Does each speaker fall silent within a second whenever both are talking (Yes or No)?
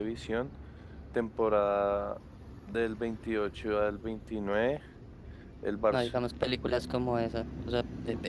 Yes